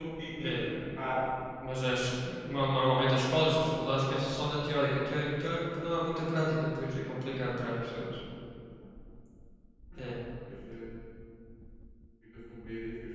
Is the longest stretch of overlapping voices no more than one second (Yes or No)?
Yes